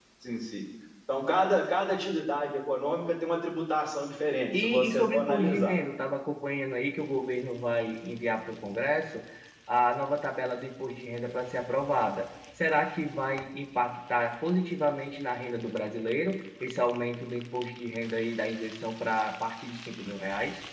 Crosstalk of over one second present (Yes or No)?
Yes